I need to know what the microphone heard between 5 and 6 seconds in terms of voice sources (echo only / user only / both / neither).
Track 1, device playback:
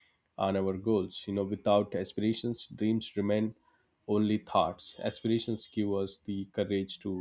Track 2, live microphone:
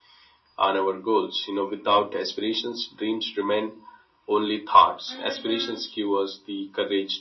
both